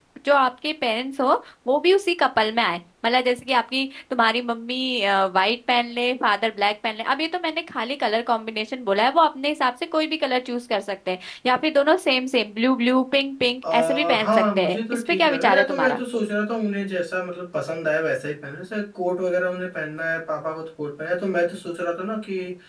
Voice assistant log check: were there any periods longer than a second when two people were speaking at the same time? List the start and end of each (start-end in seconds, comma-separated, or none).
13.7-16.0